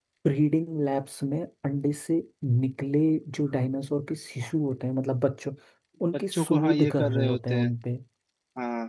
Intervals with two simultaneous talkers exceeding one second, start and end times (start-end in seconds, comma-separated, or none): 6.1-7.7